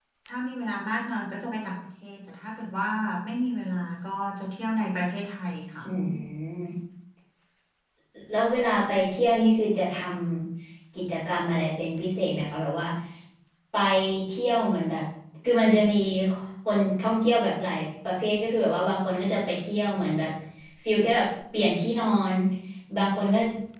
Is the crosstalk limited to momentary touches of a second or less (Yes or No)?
Yes